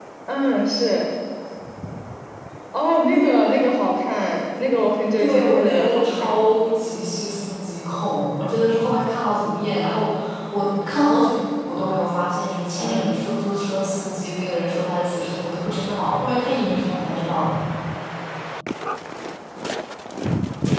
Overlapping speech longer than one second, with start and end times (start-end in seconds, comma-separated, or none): 5.2-6.4